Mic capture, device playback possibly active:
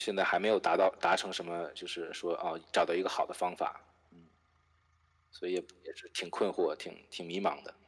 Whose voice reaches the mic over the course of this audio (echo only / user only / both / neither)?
echo only